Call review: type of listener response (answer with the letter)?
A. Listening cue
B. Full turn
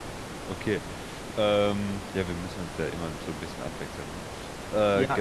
B